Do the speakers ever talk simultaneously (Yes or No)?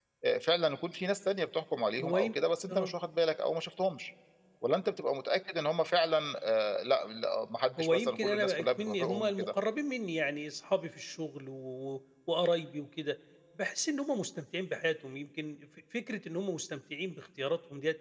Yes